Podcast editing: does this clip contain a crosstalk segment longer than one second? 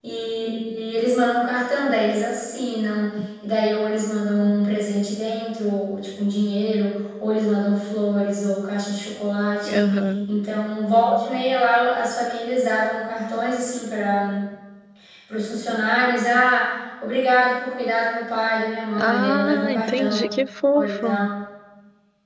Yes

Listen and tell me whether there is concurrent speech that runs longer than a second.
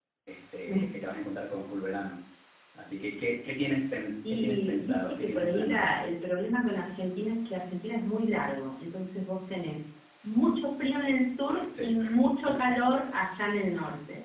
Yes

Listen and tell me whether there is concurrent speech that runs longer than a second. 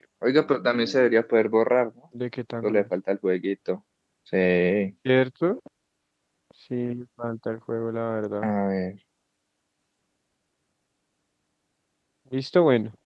No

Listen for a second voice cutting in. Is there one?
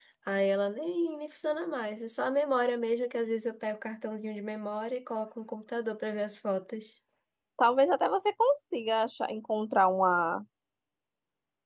No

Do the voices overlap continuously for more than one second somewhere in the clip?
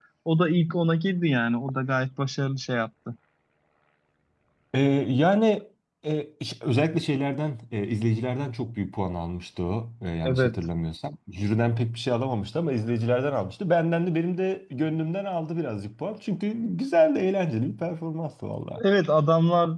No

